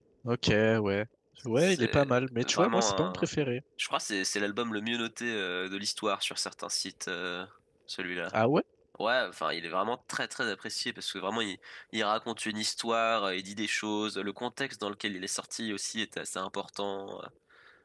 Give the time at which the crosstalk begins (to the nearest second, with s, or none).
2 s